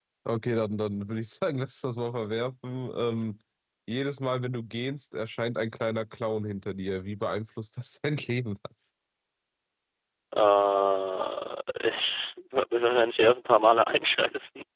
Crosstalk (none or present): none